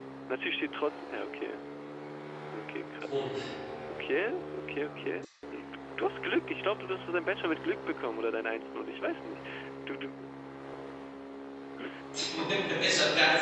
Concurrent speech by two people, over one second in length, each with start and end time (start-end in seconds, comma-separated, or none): none